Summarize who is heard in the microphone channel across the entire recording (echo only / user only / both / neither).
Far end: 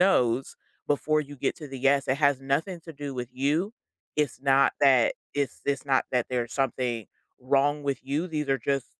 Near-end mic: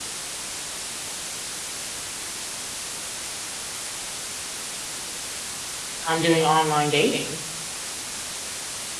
user only